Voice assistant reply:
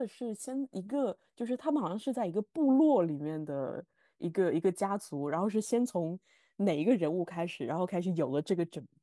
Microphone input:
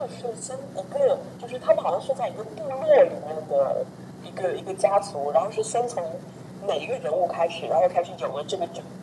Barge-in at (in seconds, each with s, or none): none